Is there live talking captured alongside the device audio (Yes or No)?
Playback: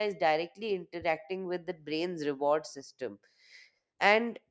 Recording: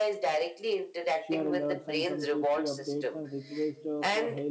Yes